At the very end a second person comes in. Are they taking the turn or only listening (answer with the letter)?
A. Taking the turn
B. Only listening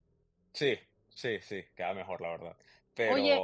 A